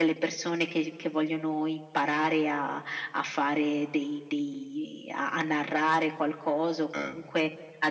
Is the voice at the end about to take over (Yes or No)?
No